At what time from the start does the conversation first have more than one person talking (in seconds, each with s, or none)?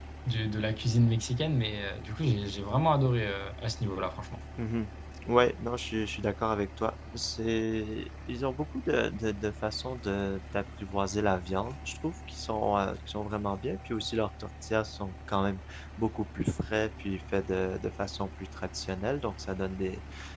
none